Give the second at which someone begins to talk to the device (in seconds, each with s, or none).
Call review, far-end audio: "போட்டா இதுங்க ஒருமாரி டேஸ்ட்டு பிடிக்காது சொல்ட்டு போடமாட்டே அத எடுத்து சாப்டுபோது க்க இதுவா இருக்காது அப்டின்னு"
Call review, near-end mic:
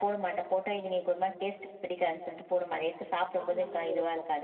3.4 s